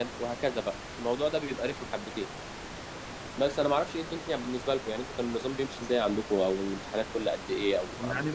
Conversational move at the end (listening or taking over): taking over